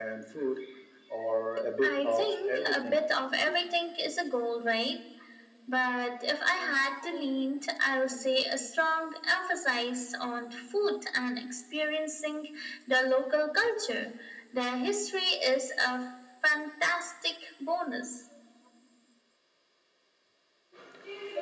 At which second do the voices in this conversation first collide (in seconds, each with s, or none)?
1.8 s